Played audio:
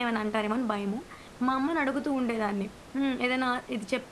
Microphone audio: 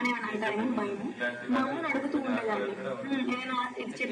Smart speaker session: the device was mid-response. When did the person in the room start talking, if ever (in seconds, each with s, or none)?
0.3 s